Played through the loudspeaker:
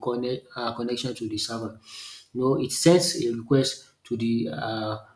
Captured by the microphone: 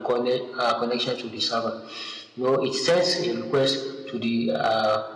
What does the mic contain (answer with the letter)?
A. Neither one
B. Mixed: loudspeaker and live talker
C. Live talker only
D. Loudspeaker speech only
D